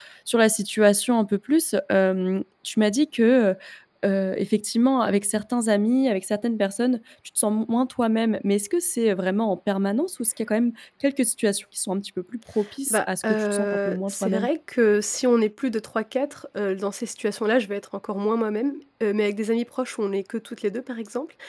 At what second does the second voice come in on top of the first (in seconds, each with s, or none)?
12.9 s